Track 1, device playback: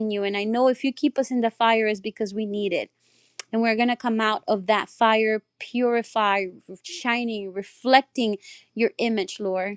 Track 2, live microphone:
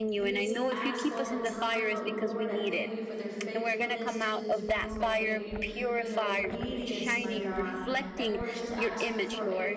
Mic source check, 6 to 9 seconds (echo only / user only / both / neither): both